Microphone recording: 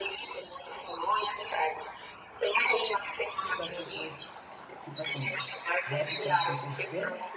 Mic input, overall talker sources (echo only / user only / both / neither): both